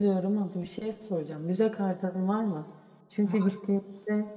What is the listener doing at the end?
listening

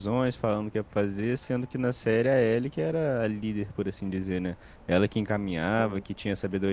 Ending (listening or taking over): listening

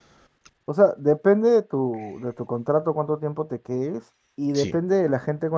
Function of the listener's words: listening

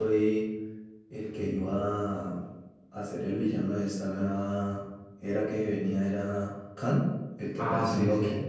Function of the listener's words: taking over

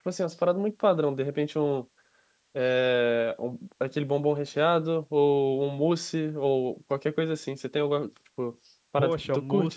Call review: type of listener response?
taking over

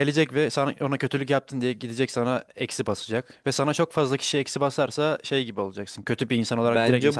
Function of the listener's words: taking over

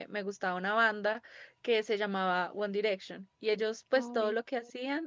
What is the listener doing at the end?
listening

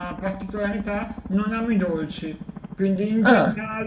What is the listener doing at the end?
listening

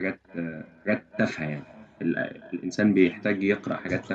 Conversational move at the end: taking over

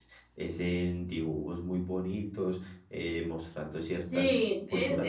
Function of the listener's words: taking over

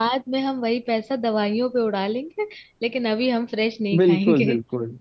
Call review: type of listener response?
taking over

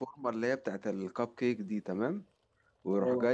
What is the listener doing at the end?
listening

